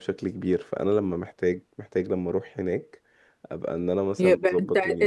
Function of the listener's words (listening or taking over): taking over